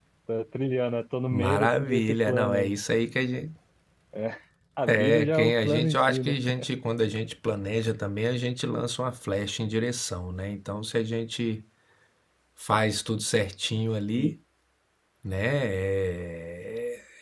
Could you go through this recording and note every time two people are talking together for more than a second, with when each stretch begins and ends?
1.3-2.7, 4.9-6.3

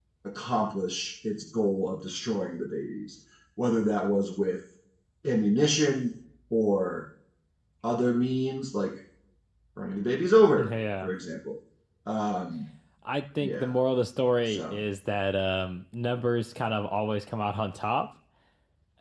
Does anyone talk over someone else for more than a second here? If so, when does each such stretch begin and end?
none

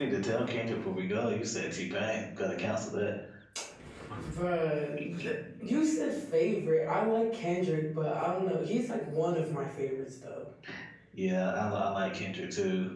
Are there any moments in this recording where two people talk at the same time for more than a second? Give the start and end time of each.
none

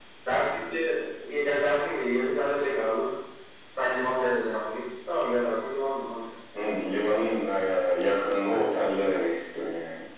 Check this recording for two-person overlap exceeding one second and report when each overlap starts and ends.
none

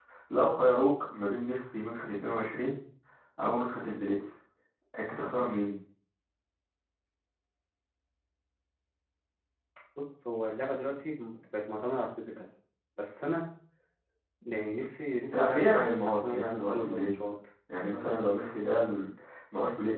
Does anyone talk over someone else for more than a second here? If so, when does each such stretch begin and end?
15.3-17.1

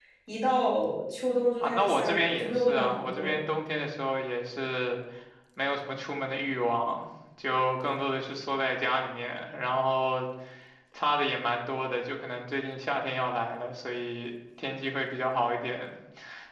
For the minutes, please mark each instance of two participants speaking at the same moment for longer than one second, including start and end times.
1.6-3.4

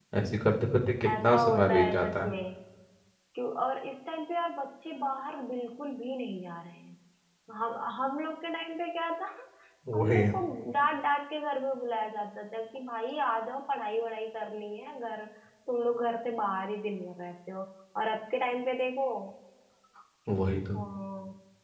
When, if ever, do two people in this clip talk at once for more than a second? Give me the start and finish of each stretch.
1.1-2.3

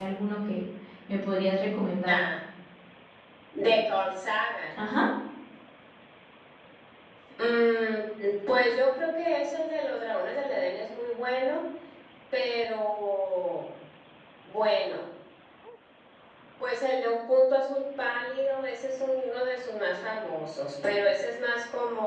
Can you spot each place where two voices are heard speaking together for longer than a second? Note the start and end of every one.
none

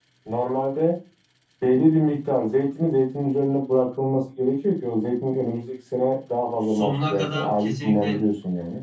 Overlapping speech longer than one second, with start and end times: 6.7-8.2

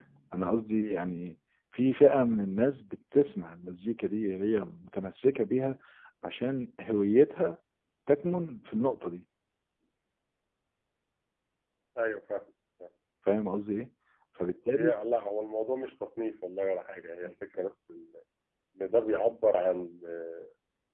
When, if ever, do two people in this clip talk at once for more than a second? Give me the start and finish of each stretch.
none

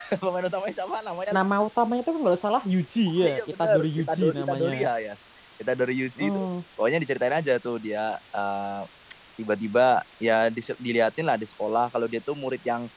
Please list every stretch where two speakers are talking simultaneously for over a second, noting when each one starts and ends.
3.2-4.7

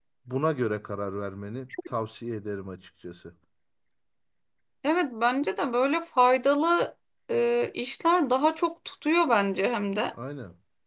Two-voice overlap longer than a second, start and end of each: none

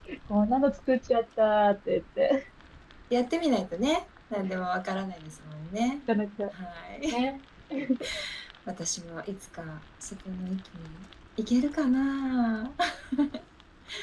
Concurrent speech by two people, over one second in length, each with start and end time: none

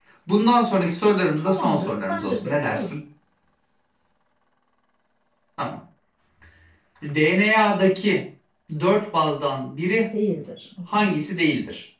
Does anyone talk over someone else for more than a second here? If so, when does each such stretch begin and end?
1.4-3.0

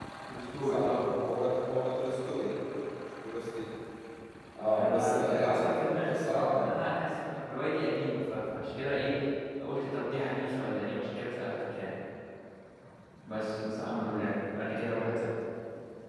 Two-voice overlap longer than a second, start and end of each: 4.8-7.0

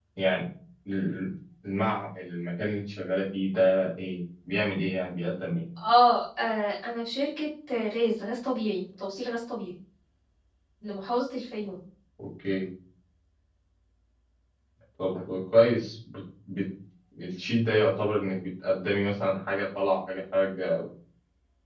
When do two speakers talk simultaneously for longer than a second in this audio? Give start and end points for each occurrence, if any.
none

